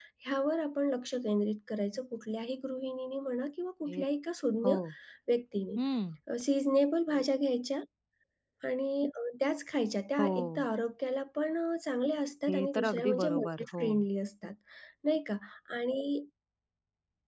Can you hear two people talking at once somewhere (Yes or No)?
Yes